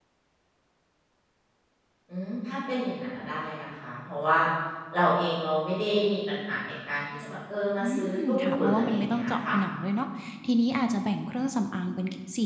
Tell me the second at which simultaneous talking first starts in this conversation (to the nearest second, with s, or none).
8 s